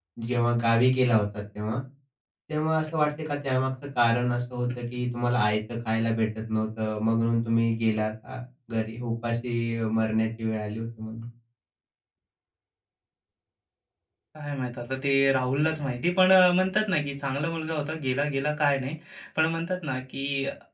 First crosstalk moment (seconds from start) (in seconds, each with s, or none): none